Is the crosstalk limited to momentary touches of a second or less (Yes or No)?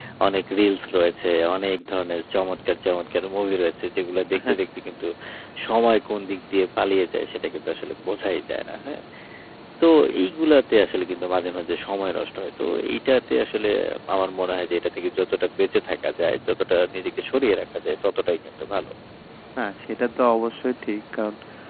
Yes